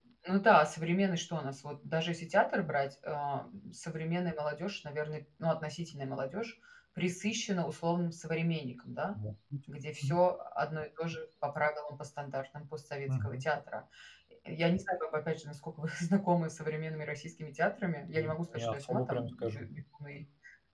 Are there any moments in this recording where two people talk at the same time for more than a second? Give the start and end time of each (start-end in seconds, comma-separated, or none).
18.1-19.7